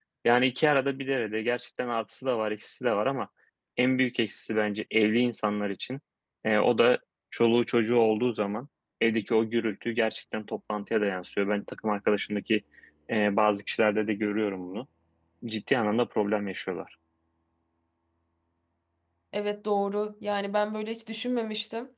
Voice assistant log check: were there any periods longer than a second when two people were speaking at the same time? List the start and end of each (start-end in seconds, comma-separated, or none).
none